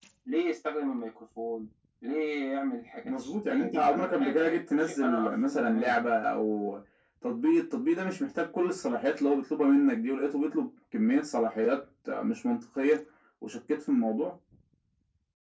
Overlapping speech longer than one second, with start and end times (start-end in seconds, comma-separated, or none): 3.0-6.1